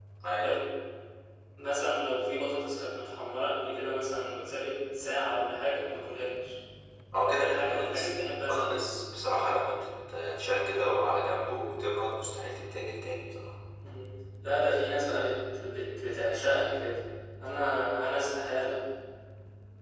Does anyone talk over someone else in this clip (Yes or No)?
Yes